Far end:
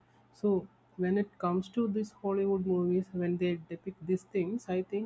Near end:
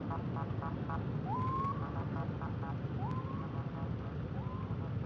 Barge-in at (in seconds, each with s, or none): none